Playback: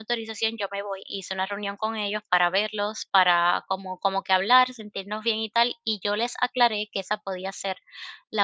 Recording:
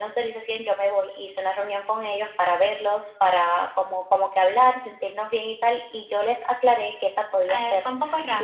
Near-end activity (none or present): present